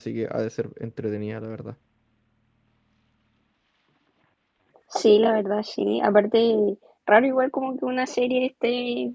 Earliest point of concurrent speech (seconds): none

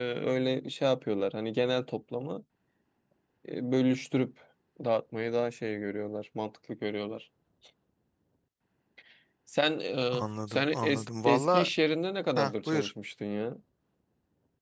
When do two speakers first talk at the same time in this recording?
10 s

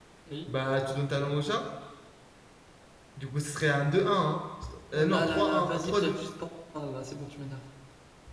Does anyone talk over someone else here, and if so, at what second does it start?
5 s

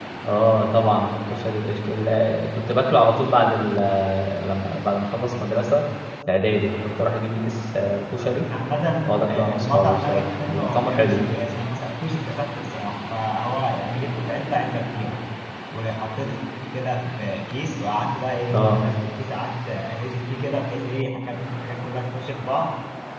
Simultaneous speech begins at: 9 s

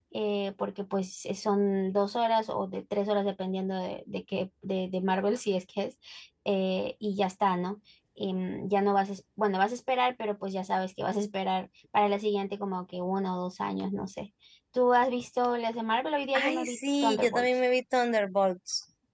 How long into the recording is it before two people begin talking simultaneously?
16 s

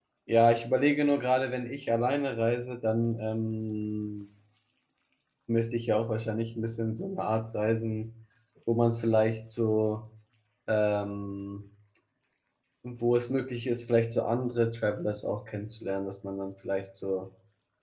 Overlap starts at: none

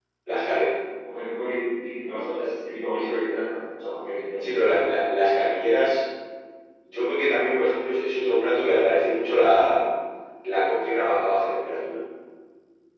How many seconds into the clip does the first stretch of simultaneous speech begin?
none

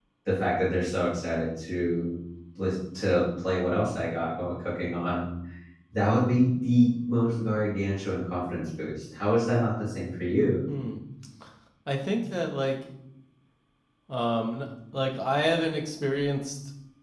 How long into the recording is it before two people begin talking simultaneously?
none

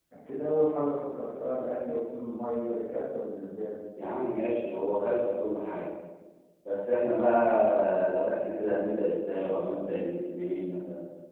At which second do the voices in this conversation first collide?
none

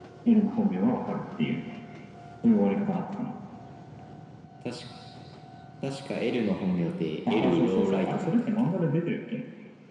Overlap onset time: 7 s

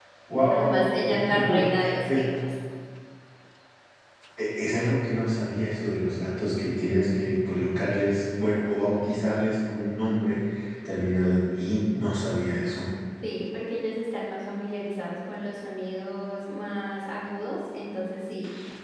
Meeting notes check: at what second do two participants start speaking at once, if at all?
1 s

